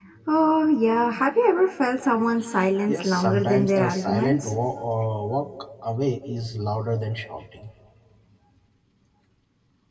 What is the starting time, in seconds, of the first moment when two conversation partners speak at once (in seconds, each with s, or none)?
2.9 s